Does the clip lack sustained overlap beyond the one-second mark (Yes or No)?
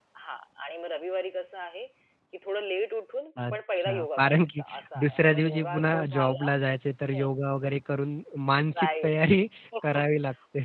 No